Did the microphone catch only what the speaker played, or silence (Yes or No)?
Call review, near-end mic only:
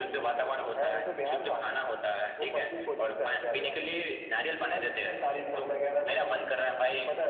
Yes